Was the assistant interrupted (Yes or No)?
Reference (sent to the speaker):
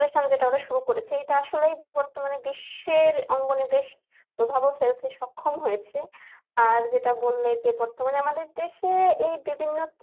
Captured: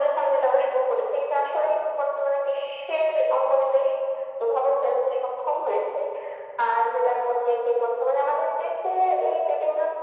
No